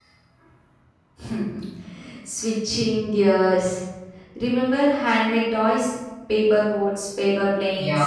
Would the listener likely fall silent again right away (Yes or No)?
No